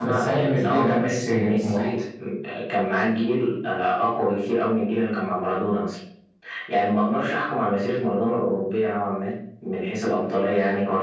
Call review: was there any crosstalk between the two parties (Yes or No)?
Yes